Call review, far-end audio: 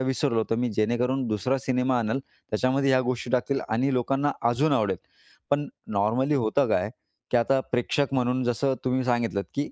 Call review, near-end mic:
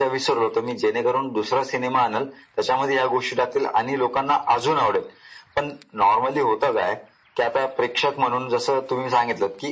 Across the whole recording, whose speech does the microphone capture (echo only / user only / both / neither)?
echo only